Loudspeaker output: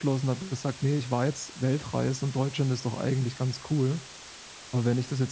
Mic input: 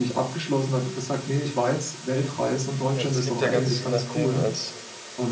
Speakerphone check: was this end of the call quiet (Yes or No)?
No